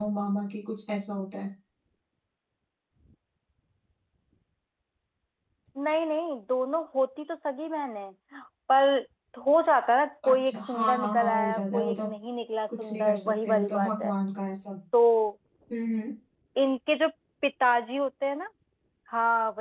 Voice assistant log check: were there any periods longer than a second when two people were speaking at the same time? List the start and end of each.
10.3-12.1, 12.8-14.1

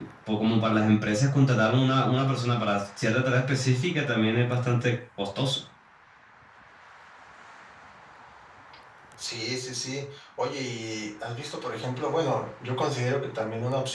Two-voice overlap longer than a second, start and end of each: none

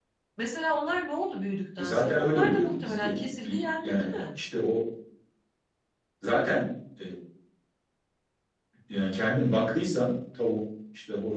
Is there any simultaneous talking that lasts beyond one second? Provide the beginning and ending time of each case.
1.8-4.2

